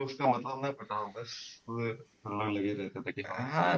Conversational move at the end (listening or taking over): taking over